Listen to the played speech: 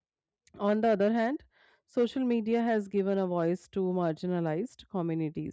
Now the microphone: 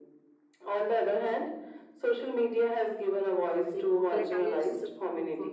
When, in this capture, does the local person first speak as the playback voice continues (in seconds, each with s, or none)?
3.7 s